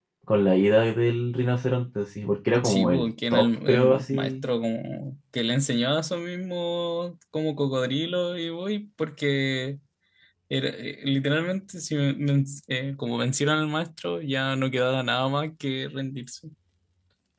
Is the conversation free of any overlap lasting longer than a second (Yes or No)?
No